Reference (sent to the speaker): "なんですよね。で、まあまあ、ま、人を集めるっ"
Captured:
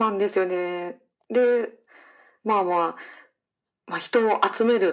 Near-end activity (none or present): none